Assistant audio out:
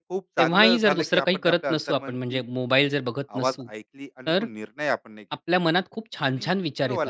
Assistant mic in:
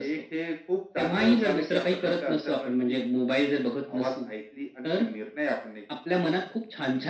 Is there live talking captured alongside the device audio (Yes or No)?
No